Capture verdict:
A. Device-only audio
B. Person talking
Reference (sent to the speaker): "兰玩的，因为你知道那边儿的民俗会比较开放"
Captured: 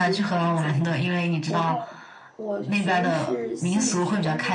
B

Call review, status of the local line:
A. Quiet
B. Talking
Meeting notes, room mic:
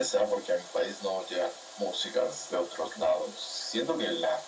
A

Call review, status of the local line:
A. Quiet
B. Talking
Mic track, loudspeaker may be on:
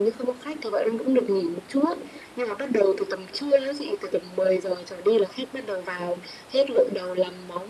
A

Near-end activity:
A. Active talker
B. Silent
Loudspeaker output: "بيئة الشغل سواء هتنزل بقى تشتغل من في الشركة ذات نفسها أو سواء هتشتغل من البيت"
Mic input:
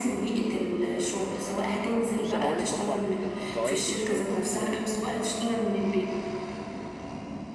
A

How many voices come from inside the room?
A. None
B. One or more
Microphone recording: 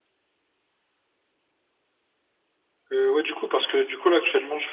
B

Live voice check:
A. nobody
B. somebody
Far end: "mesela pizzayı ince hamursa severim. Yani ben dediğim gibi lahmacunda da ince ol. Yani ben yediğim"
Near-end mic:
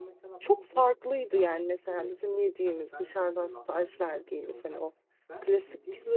B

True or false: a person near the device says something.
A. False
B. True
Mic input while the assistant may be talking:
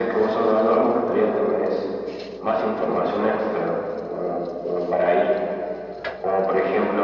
A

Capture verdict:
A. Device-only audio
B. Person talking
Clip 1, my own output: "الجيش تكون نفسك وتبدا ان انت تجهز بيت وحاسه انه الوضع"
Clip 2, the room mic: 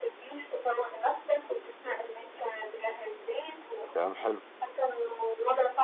B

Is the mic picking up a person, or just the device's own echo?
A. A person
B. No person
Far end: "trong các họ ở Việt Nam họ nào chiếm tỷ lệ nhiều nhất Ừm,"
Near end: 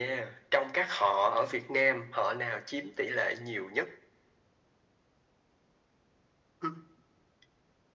B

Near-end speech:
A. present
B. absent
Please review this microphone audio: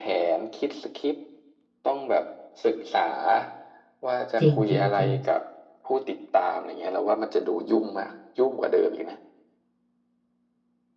A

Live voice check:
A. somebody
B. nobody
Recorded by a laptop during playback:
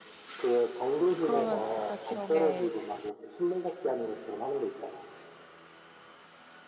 A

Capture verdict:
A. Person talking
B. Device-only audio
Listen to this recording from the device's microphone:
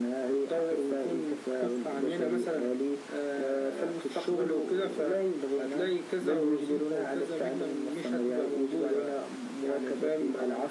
B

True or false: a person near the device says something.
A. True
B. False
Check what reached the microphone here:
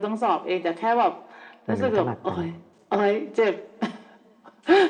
A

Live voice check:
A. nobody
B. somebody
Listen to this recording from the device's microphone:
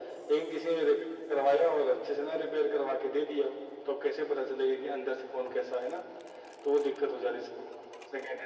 A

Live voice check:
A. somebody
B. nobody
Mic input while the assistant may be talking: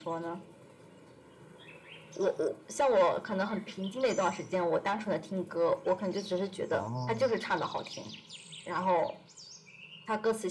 A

